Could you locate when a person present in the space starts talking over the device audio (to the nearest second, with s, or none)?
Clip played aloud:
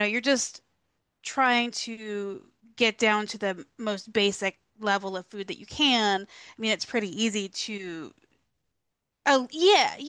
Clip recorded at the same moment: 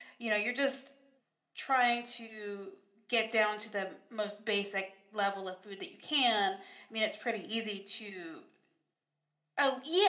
none